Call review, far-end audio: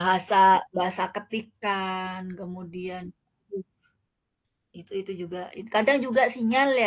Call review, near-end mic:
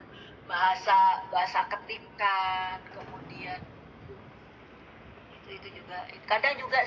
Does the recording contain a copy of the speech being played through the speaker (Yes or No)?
Yes